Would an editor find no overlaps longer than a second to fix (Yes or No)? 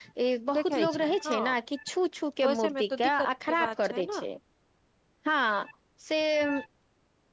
No